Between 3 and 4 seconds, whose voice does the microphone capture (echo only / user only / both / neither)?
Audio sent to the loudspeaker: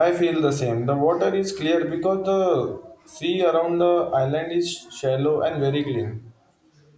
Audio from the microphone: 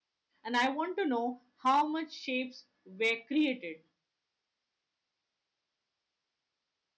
user only